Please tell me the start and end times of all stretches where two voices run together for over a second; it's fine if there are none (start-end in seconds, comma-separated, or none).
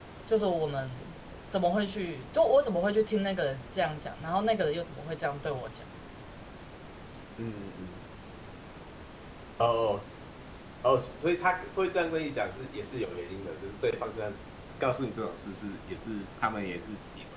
none